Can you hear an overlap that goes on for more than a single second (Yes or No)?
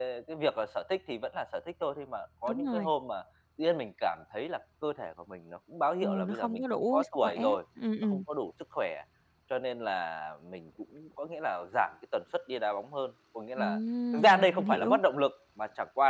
Yes